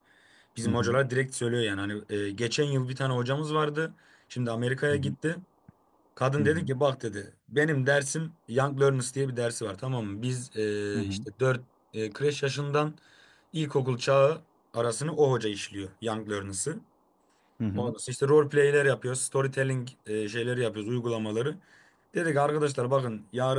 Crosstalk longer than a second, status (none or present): none